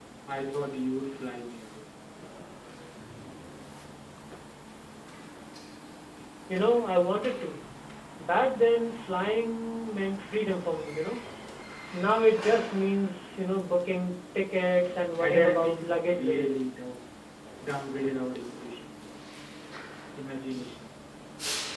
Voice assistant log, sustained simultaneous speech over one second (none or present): present